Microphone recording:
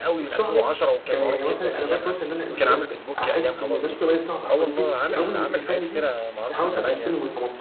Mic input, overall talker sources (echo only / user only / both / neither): both